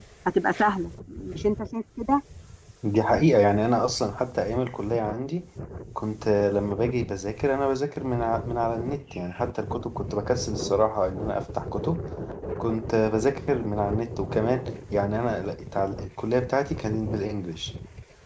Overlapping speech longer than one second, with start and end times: none

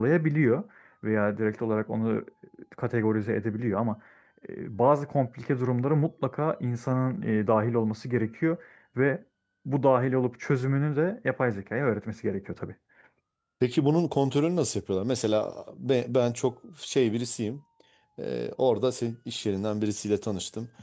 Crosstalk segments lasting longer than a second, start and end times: none

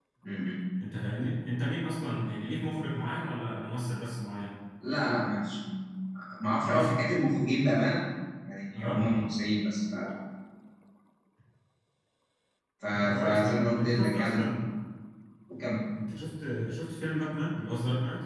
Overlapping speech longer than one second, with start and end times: 12.9-14.5

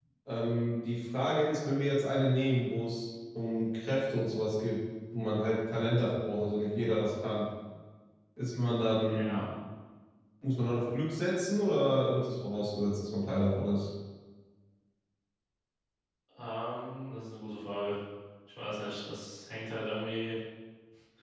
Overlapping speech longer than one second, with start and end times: none

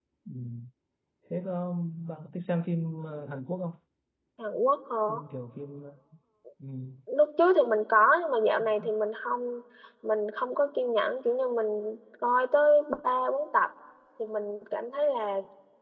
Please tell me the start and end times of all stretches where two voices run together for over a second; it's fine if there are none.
none

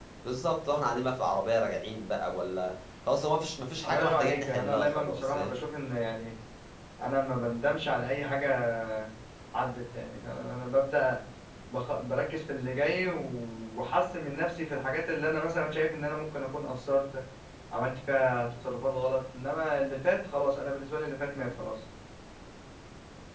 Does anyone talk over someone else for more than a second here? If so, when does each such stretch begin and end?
3.8-5.6

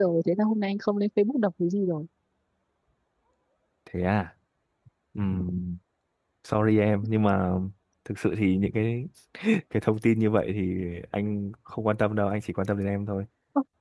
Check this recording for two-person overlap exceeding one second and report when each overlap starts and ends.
none

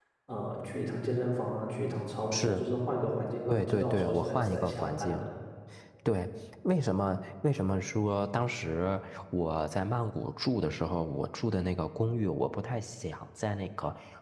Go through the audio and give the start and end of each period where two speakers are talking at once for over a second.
3.5-5.3

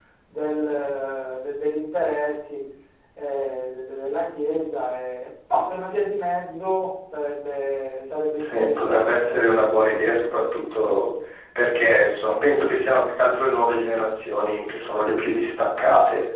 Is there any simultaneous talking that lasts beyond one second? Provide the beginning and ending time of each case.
8.4-9.7

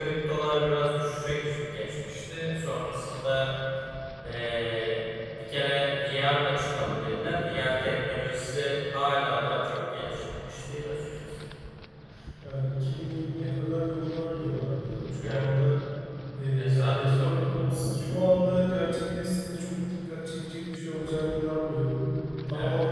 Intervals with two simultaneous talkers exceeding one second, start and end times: 16.6-18.0

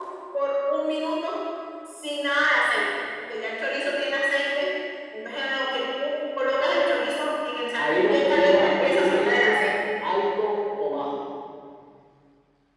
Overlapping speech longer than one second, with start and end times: 7.8-9.6

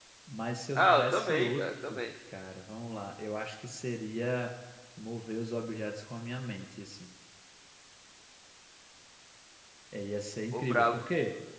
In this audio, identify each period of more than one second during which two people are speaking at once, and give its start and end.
0.8-2.0

